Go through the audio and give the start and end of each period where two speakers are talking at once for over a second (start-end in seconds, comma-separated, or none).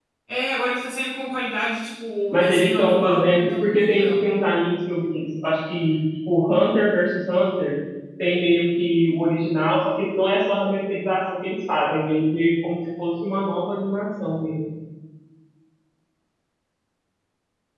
2.3-4.2